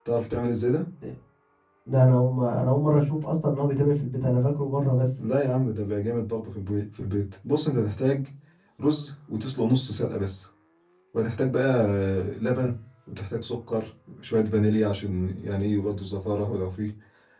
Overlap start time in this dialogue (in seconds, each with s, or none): none